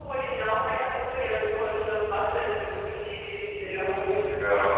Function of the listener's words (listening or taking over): taking over